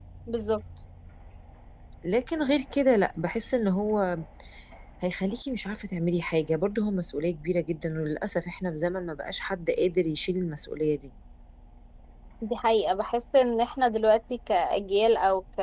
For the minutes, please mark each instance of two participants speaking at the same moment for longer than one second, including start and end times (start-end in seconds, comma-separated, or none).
none